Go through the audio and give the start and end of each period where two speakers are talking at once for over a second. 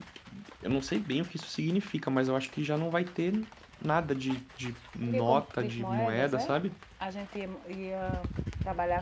5.0-6.6

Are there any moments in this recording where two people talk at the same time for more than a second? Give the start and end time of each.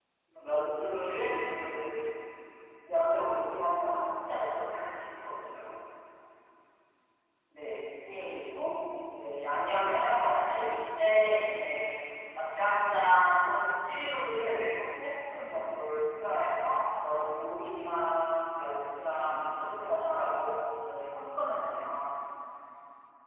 none

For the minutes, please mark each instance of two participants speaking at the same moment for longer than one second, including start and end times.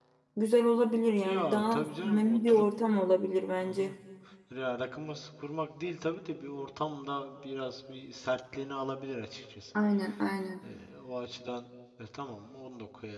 1.2-2.6

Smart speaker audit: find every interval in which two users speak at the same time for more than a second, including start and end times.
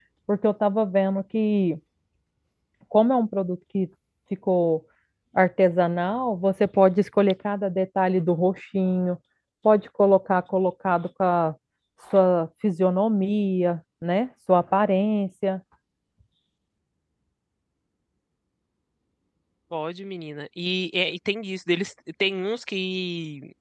none

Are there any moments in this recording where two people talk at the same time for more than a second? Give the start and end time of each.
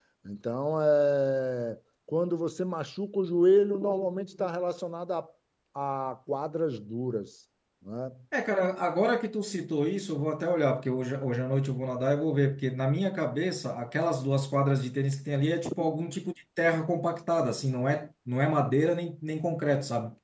none

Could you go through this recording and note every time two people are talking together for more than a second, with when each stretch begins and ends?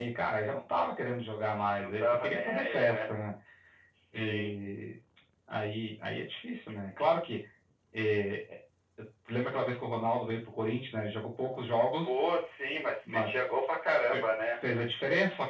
1.8-3.0

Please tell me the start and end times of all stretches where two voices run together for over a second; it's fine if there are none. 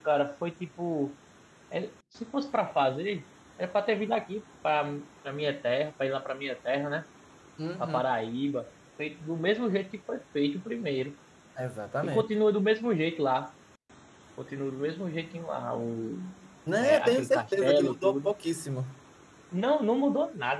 16.8-18.3

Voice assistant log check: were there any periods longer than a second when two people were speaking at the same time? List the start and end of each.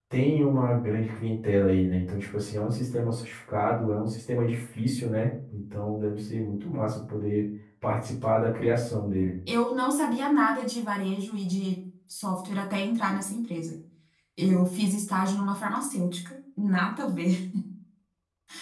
none

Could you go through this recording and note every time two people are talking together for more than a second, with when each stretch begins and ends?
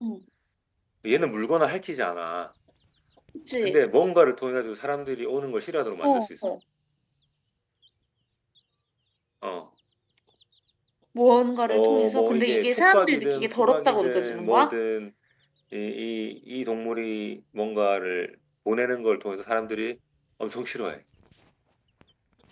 11.7-14.7

